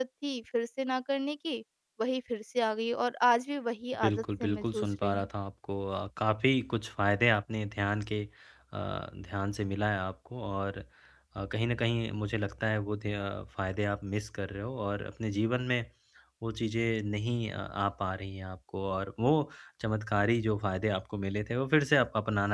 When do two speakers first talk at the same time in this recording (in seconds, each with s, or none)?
4.0 s